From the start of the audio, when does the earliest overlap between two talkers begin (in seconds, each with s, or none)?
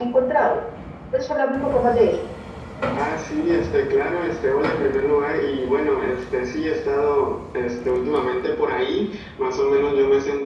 none